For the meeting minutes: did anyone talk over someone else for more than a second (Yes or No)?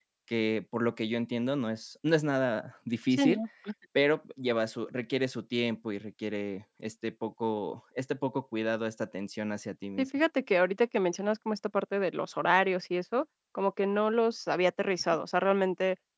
No